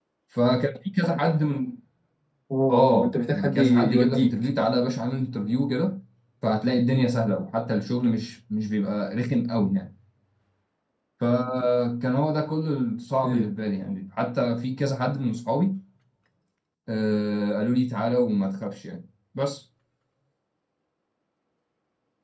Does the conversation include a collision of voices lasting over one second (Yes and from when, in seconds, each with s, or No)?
Yes, from 2.7 s